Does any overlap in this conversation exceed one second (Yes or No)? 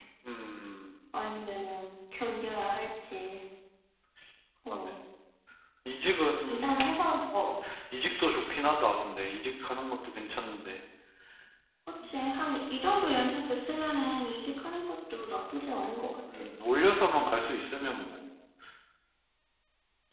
No